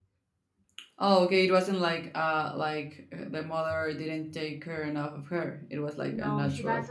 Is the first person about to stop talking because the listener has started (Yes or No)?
Yes